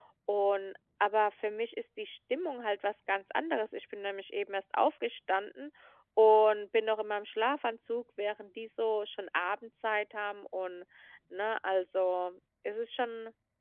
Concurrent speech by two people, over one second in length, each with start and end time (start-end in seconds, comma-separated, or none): none